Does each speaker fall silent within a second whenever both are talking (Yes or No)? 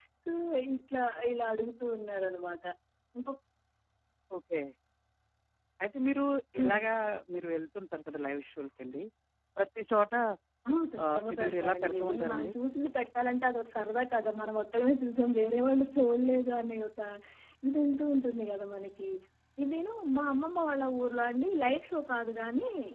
No